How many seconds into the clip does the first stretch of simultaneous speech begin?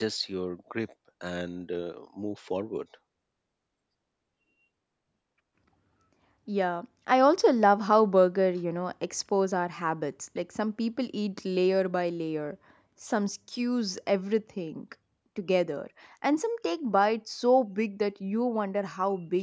none

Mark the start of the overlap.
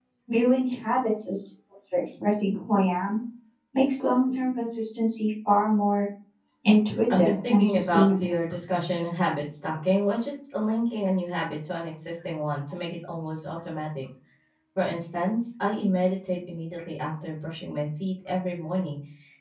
7 s

